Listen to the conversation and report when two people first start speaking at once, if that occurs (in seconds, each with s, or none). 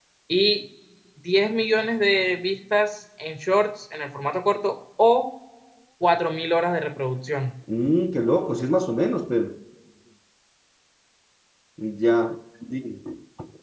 none